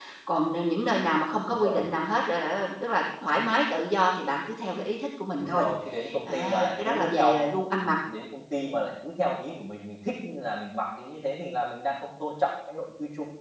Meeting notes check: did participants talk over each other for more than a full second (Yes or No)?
Yes